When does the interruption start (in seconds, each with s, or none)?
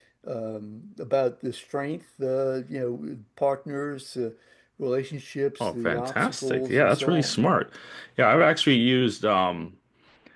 5.6 s